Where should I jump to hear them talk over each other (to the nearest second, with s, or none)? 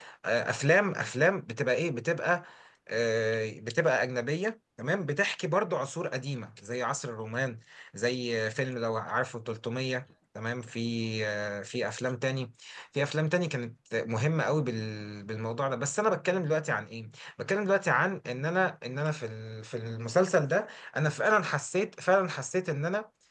none